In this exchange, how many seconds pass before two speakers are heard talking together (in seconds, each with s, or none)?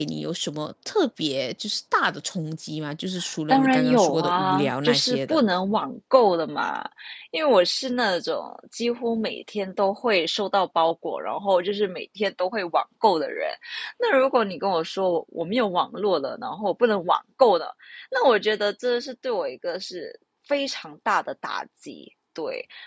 3.5 s